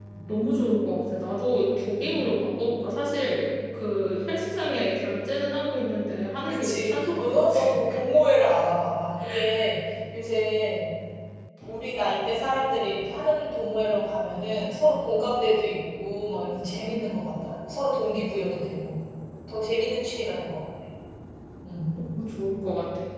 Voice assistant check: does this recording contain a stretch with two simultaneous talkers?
Yes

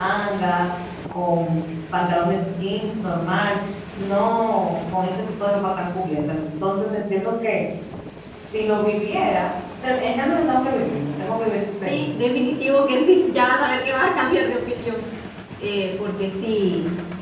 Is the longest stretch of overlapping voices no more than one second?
Yes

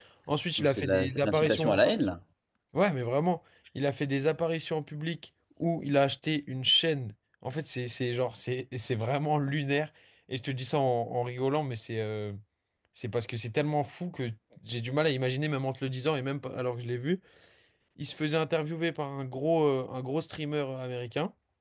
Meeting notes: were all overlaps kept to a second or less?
No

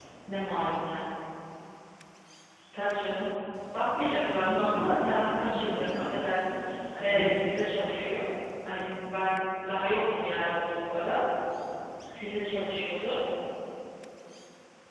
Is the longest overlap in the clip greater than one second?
Yes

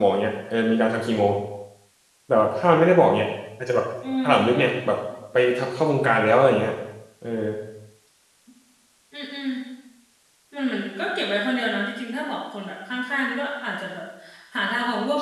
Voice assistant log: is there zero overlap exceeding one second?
Yes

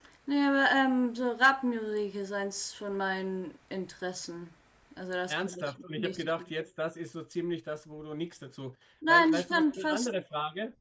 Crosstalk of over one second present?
Yes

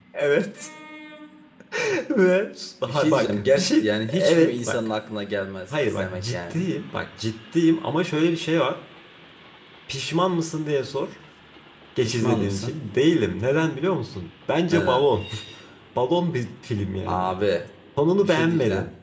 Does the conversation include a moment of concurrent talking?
Yes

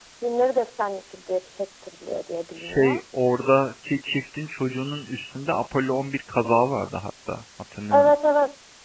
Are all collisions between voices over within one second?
Yes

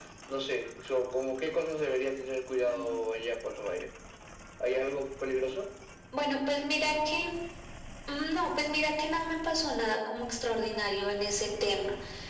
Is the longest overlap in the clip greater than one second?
No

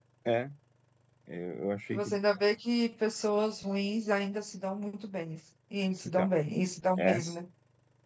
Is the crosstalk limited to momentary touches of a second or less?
Yes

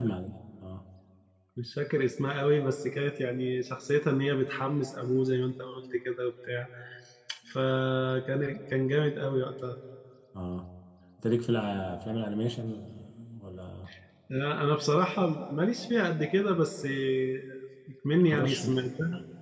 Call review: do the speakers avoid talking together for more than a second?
Yes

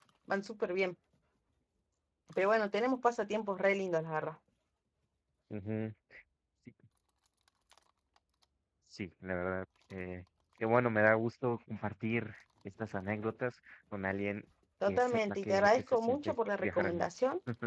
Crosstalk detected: Yes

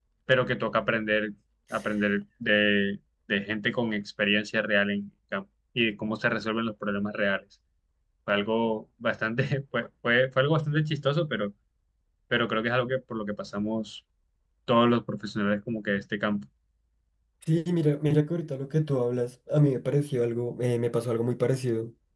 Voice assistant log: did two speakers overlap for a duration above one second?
No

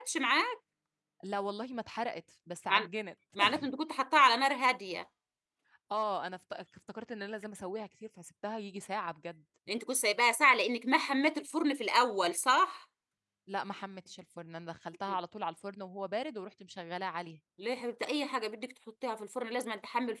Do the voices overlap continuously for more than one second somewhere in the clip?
No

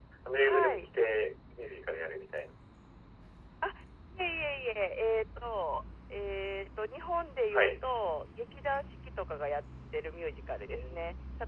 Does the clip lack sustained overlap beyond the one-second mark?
Yes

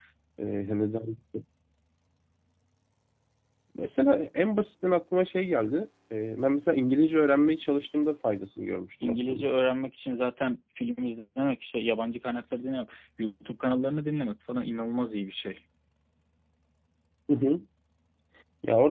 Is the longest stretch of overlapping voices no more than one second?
Yes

